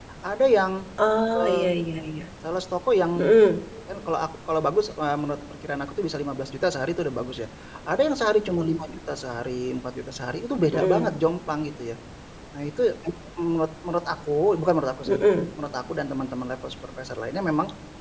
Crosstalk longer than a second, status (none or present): none